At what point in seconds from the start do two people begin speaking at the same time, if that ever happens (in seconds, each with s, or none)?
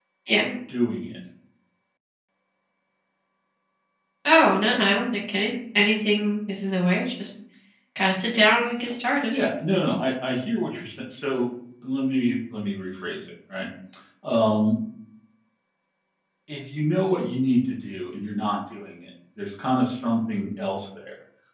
none